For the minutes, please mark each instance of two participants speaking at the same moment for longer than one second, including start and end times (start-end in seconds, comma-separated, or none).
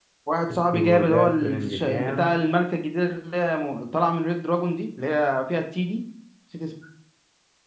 0.5-2.4